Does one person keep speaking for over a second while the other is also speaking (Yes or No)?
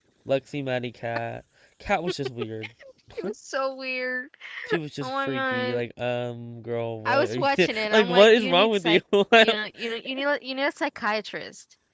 Yes